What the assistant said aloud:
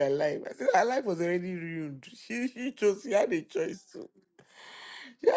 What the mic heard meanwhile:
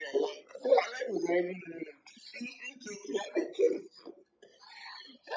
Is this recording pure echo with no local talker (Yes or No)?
Yes